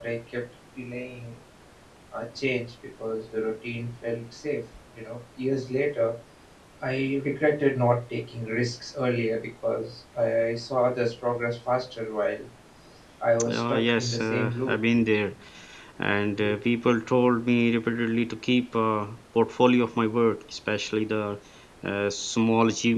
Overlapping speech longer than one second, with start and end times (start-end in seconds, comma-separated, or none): 13.5-14.7